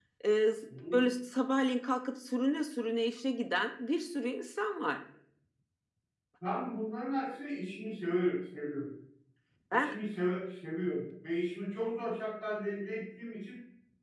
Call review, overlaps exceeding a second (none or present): none